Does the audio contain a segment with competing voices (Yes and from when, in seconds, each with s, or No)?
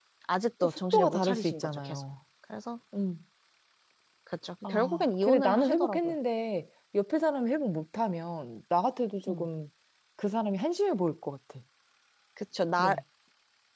Yes, from 0.6 s